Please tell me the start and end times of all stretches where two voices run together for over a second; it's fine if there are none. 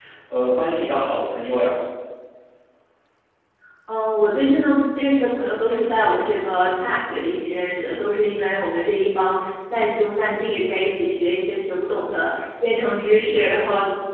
none

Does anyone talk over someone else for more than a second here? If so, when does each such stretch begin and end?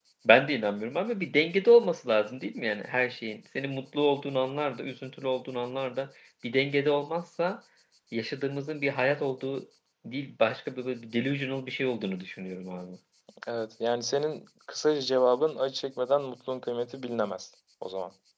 none

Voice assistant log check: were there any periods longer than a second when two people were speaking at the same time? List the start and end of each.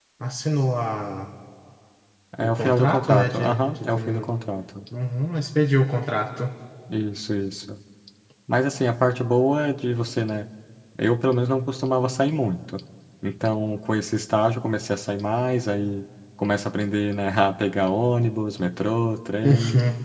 2.4-4.2

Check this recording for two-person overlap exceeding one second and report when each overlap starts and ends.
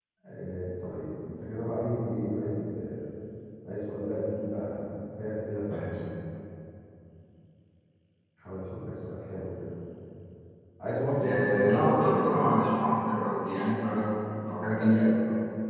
11.2-12.7

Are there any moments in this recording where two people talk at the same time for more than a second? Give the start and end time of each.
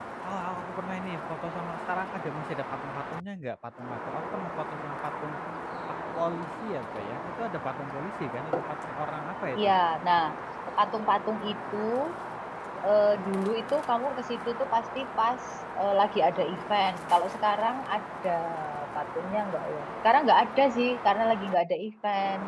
none

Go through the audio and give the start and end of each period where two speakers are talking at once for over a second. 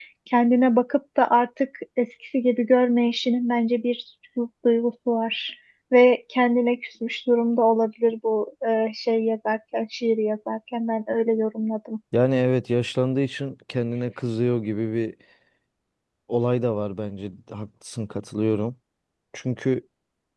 none

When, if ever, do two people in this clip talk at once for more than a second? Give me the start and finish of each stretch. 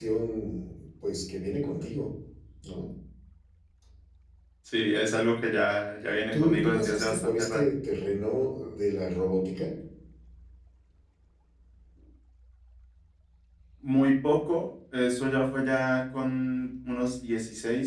6.3-7.6

